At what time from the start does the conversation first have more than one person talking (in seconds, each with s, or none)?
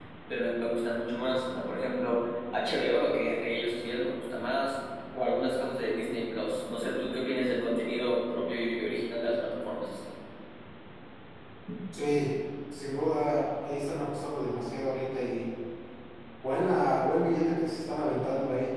none